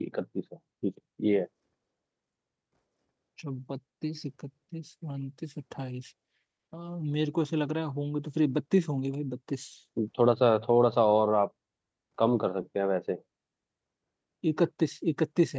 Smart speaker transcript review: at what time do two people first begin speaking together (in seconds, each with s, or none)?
none